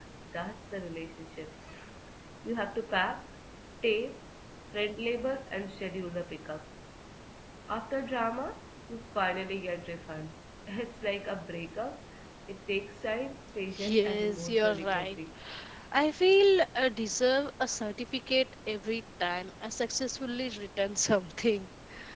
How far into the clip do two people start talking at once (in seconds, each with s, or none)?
13.7 s